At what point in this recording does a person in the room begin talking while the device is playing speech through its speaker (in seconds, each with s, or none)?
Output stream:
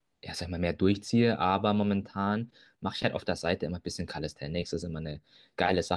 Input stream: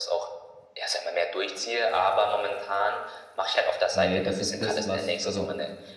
3.9 s